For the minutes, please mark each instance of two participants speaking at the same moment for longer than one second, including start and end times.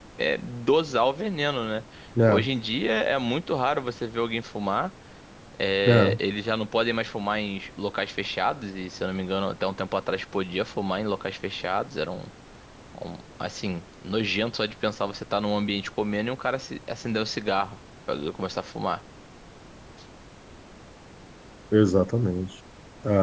none

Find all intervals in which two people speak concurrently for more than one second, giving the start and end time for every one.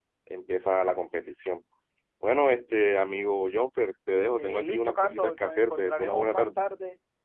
4.3-6.6

